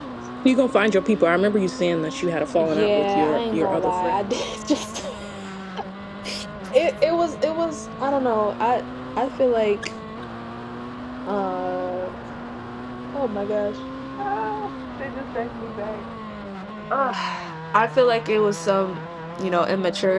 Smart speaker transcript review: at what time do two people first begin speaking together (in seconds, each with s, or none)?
2.6 s